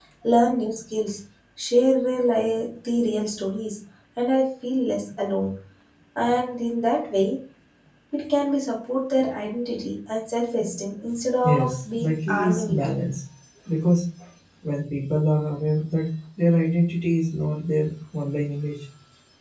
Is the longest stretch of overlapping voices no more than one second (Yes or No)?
No